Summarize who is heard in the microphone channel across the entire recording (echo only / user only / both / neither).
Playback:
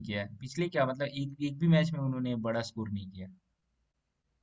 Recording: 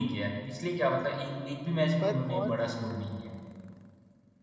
both